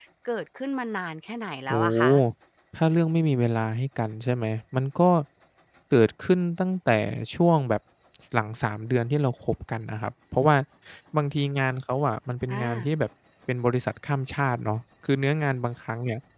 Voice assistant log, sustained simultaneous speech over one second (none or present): none